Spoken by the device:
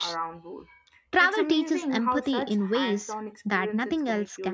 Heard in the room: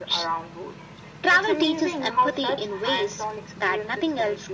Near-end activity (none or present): none